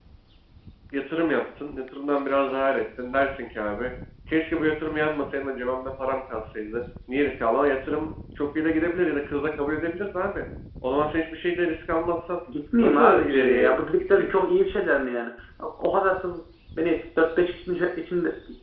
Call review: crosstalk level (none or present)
present